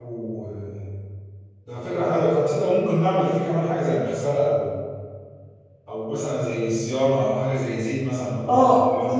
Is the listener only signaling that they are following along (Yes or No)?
No